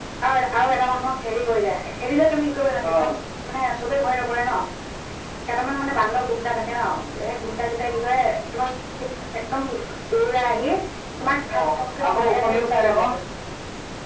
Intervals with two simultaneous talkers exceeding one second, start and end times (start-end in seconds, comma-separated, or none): 11.6-13.1